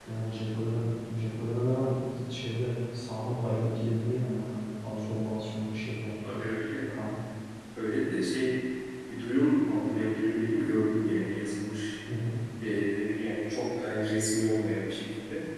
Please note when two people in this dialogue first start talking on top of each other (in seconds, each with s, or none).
none